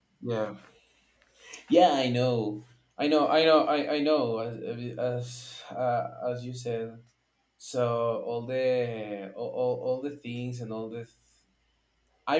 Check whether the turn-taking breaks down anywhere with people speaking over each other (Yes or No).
No